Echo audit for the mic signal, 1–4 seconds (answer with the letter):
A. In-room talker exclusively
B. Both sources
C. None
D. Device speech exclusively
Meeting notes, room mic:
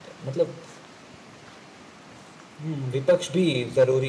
A